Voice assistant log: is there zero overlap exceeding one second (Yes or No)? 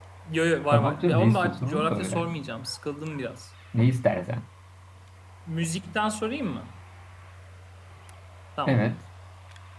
No